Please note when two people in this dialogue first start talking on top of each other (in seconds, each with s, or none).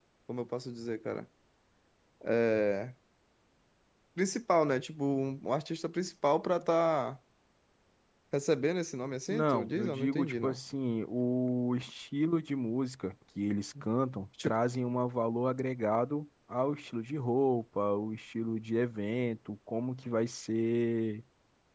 9.3 s